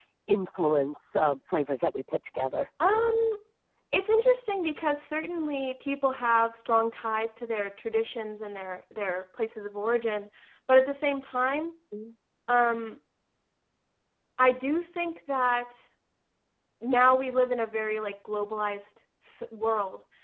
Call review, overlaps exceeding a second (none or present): none